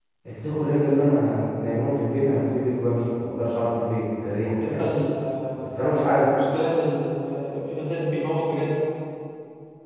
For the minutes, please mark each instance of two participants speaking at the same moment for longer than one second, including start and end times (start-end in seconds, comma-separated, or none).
none